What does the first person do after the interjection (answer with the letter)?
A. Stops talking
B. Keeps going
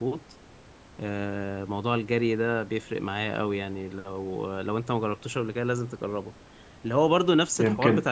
B